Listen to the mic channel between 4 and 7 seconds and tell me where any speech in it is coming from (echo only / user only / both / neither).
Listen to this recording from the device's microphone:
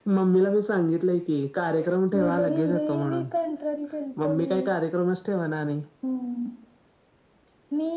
echo only